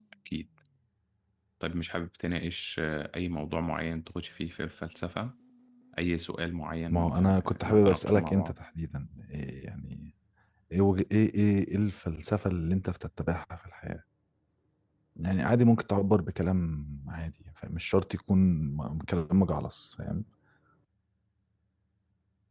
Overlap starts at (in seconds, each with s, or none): 6.9 s